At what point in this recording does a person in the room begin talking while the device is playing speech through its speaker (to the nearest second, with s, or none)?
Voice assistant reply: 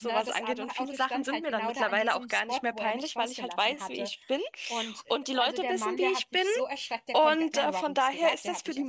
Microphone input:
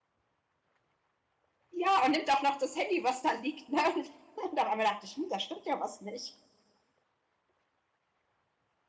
2 s